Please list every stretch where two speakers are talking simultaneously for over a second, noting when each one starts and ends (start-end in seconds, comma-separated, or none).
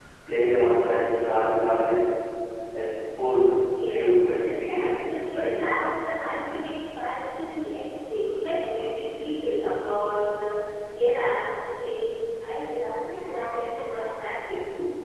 3.8-5.5